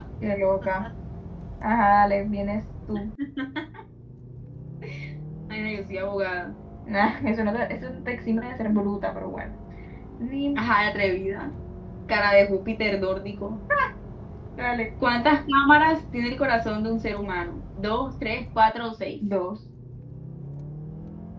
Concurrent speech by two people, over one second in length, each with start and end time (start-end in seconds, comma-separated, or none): none